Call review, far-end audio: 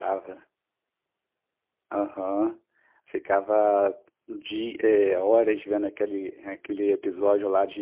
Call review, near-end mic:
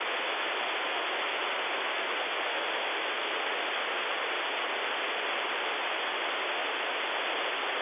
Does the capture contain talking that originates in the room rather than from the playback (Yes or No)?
No